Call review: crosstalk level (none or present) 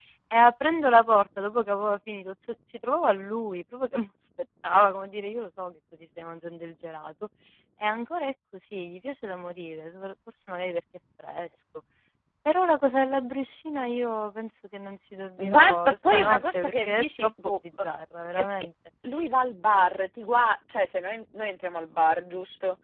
present